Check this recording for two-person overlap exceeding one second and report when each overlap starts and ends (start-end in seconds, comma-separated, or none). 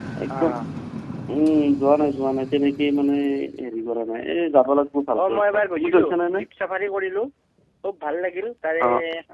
5.2-6.5